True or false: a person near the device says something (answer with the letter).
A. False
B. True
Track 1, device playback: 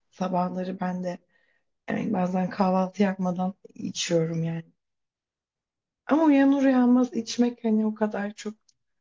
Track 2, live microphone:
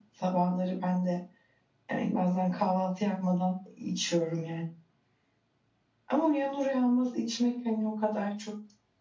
A